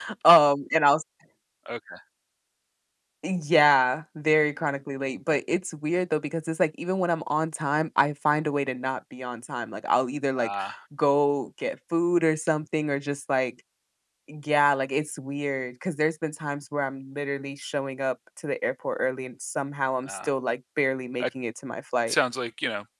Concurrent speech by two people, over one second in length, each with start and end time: none

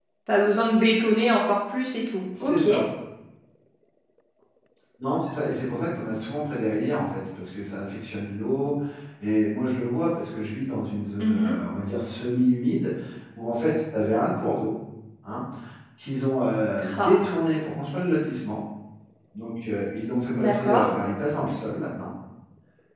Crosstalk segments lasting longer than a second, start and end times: none

